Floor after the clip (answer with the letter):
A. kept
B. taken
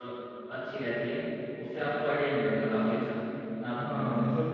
B